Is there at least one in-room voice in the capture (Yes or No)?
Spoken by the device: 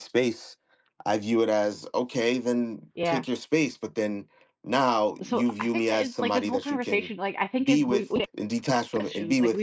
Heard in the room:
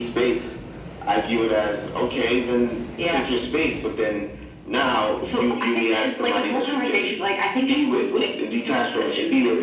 No